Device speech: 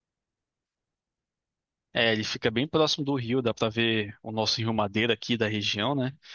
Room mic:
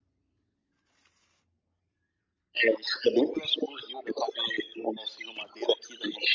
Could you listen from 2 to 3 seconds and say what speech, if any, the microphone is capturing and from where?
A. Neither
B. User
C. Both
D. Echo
D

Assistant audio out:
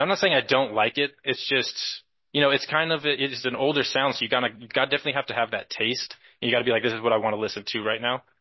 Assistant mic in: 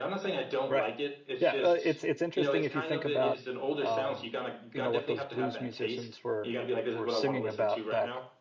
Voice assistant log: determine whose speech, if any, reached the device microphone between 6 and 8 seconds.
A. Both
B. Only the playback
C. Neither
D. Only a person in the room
A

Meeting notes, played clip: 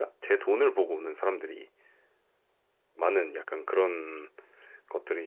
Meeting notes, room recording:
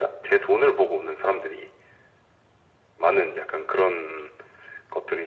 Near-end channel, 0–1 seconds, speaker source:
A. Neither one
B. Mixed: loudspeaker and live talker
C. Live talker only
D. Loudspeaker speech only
D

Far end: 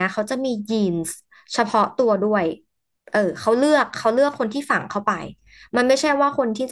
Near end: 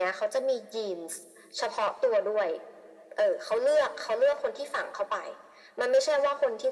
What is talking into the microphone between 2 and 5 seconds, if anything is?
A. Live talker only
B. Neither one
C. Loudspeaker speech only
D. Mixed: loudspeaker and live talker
C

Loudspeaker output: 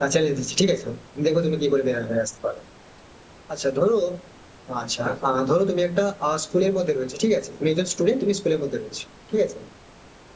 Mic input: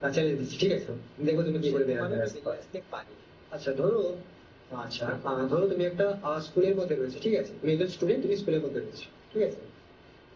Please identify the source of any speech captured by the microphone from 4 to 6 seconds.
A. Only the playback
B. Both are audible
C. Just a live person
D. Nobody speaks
A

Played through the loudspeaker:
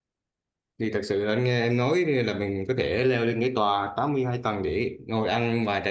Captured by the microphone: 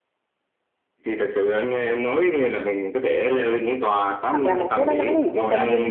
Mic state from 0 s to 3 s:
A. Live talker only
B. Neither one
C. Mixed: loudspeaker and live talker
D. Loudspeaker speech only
D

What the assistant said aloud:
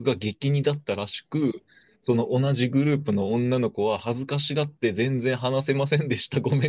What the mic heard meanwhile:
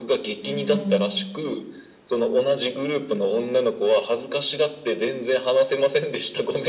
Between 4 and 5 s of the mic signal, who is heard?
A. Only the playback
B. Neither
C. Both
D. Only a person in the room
A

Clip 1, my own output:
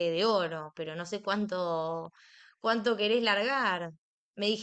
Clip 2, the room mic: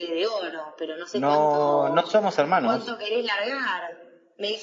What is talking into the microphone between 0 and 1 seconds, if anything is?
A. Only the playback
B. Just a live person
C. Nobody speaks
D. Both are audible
A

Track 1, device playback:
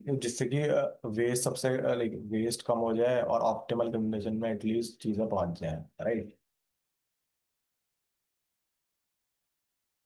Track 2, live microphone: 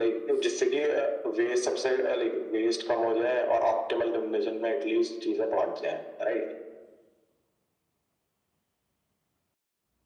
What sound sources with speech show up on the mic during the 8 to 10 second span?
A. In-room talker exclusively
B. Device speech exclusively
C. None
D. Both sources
C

